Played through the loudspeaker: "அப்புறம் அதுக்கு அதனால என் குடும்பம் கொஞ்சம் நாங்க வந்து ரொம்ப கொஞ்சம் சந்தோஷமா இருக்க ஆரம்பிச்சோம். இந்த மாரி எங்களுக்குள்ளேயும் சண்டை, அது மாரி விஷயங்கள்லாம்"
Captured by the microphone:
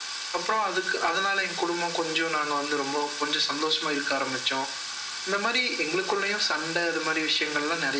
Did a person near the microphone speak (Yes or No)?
No